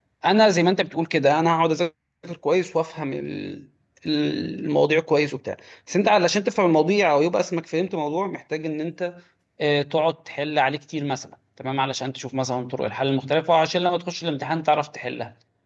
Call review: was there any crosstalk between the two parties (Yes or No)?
No